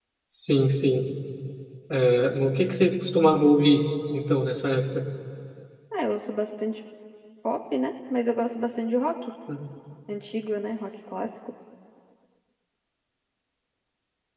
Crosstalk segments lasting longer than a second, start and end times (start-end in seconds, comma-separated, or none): none